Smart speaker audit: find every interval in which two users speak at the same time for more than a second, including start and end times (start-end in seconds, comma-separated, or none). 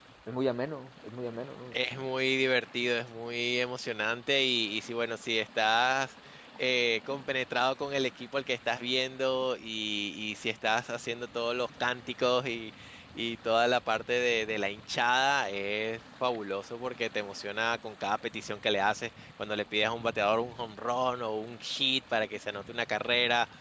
none